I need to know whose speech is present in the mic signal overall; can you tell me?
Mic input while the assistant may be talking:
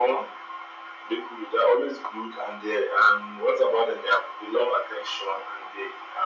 echo only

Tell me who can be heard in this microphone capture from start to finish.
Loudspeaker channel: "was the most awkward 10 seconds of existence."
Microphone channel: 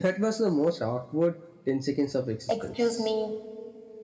both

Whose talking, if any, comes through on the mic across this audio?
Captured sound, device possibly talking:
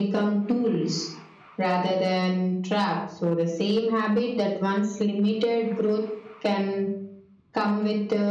echo only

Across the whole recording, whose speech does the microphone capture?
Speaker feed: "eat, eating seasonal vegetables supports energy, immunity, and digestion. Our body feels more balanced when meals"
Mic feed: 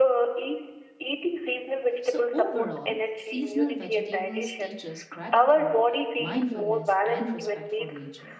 both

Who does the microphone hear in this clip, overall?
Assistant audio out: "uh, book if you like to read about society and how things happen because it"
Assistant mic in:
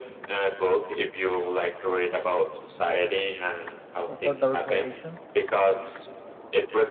both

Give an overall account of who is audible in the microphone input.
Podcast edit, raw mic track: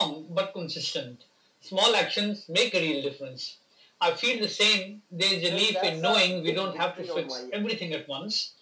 both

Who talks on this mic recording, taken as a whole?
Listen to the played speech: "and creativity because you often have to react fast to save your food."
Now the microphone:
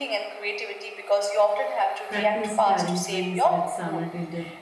both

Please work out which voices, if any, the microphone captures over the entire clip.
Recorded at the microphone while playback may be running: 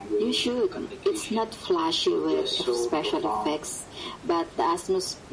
echo only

